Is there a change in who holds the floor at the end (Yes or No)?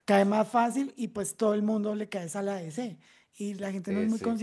No